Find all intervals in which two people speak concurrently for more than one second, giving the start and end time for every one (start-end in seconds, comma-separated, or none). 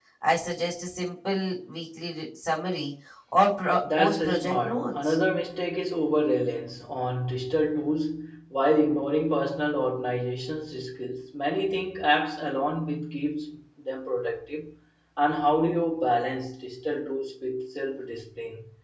3.8-5.2